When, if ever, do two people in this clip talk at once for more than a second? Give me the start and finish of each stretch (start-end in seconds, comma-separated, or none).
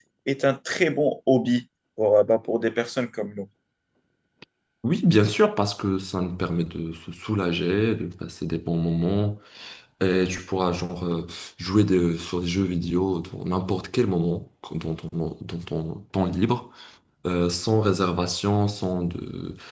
none